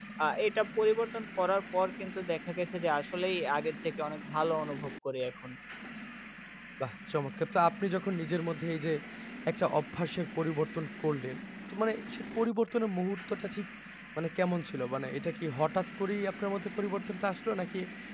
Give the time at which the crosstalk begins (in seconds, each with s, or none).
none